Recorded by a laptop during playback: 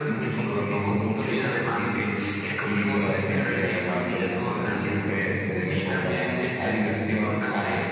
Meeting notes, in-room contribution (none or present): none